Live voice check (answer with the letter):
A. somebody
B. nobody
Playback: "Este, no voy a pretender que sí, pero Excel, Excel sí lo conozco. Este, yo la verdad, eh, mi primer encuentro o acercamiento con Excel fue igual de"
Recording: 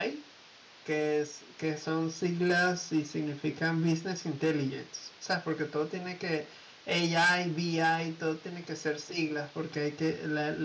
A